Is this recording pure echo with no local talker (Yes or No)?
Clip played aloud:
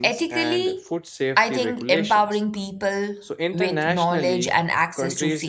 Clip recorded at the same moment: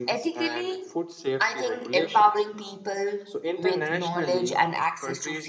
Yes